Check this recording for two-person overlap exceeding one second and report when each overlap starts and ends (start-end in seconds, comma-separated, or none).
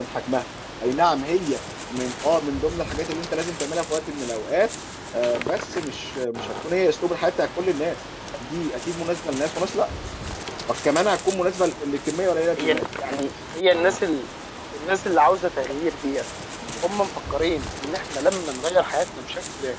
none